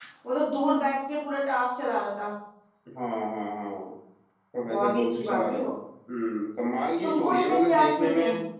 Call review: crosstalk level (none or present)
present